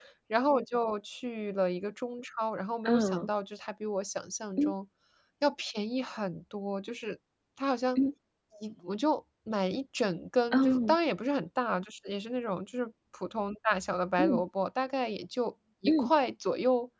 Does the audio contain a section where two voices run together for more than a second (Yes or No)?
No